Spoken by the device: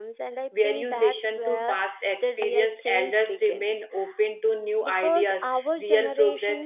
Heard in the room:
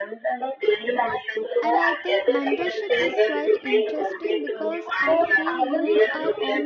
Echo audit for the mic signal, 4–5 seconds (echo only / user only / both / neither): both